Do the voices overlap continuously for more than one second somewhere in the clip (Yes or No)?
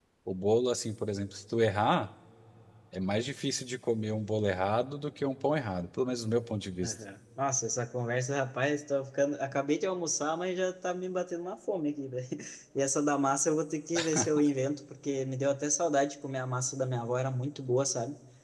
No